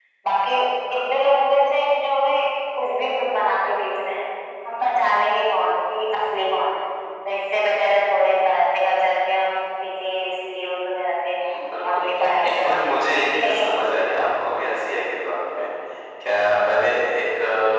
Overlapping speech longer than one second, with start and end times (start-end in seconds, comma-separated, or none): 12.4-13.7